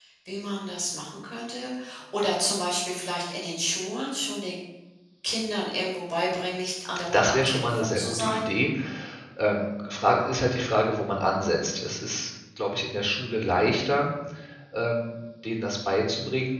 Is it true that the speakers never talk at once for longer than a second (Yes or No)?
No